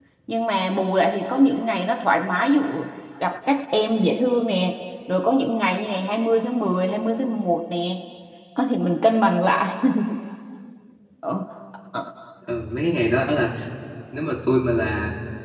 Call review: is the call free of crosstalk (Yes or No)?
Yes